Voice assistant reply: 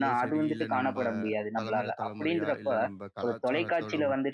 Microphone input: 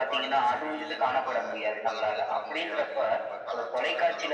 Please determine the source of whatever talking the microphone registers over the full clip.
echo only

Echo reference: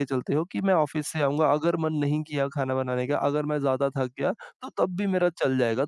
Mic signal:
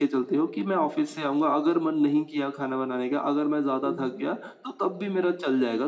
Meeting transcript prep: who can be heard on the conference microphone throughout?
both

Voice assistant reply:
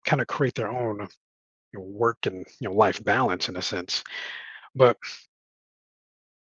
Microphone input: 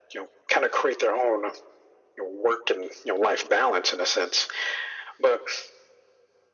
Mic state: echo only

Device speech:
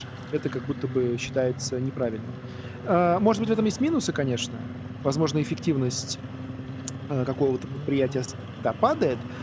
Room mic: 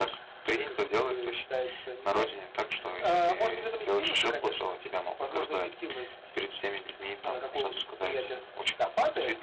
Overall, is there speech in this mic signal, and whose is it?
both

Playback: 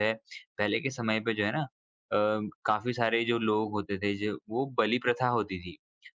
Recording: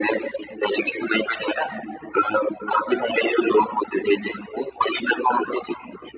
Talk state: echo only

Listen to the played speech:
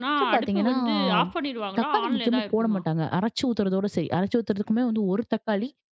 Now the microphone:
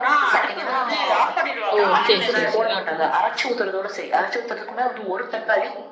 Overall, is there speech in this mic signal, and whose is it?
both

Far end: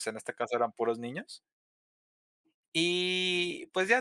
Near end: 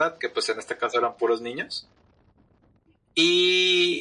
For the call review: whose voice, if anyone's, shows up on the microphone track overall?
echo only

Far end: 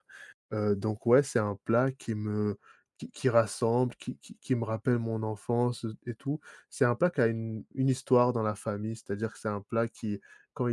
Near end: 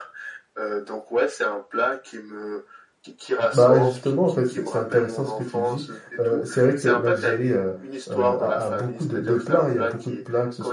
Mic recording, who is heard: both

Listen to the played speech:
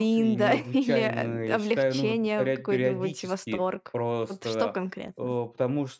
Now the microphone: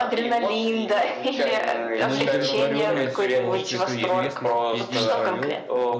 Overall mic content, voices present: both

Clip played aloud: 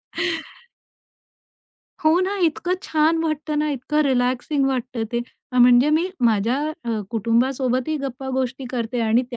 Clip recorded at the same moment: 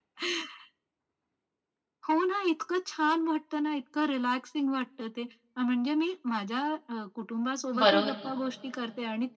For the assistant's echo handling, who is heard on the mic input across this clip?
both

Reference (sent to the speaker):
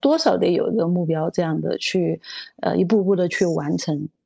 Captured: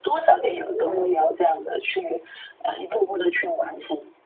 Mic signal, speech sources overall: both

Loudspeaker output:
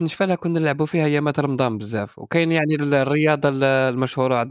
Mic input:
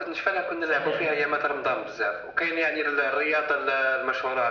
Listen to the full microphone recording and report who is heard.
both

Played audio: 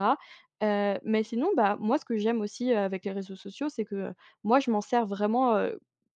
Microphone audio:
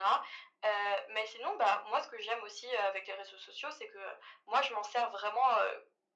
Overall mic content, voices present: echo only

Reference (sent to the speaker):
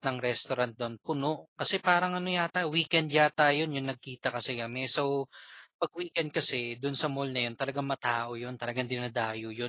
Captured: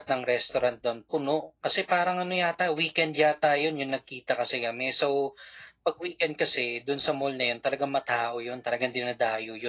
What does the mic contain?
echo only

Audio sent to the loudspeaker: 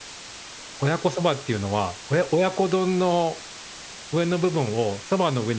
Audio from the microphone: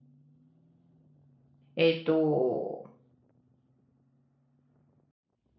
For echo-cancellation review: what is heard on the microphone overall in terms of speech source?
user only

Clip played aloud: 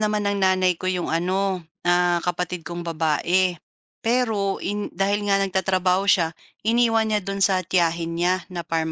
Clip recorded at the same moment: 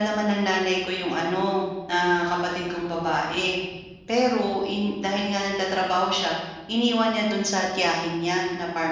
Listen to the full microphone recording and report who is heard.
echo only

